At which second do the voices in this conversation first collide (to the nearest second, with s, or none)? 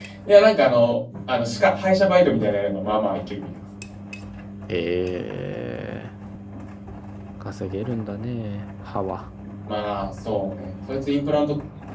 none